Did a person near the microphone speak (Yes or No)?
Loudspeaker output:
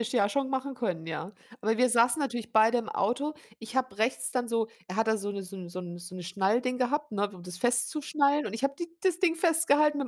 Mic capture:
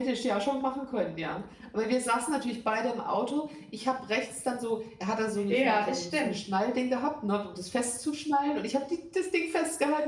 Yes